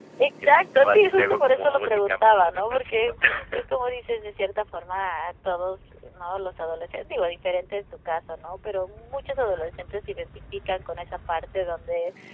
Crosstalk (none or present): present